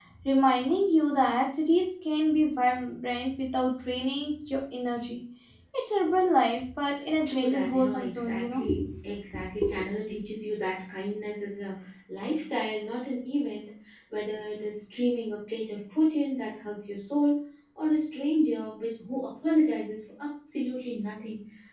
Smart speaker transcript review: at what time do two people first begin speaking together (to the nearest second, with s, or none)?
7 s